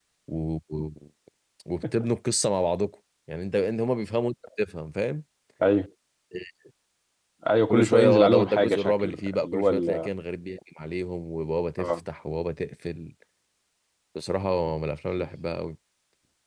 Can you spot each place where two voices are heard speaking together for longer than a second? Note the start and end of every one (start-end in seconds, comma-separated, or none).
7.7-10.1